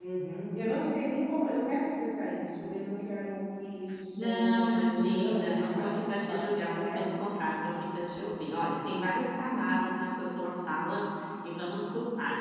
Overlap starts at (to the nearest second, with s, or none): 4 s